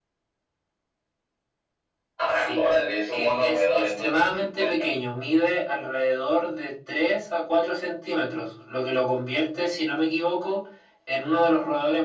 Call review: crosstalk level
present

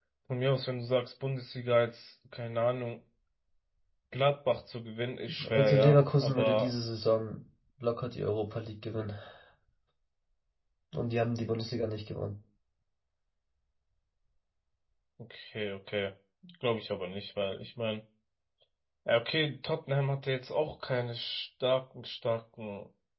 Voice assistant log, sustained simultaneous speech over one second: present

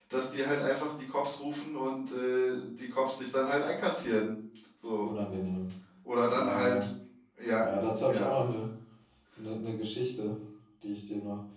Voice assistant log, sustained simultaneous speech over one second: none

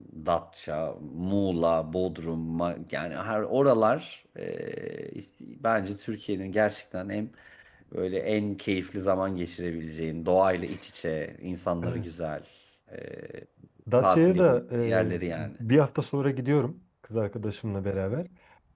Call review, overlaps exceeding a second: present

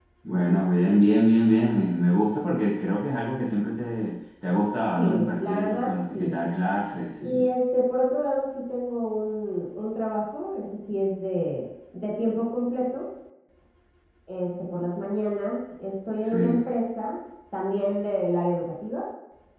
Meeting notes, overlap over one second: present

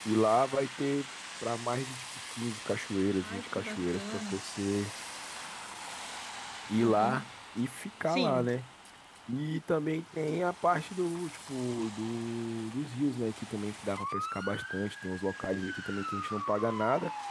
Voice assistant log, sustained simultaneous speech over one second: present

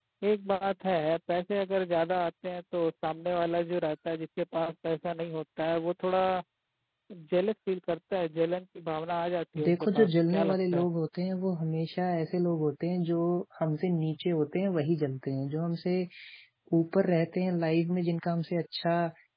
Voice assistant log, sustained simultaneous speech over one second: present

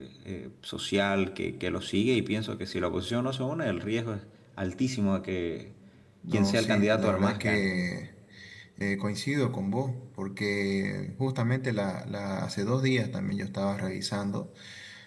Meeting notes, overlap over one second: present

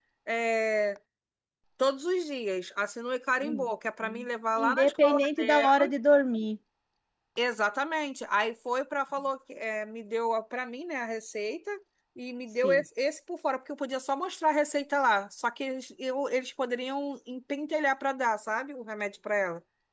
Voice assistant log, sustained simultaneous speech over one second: present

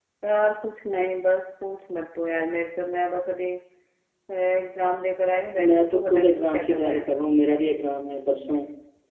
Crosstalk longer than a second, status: present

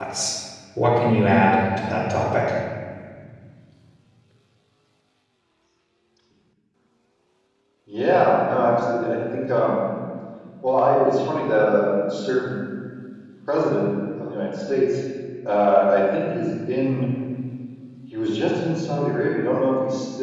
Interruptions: none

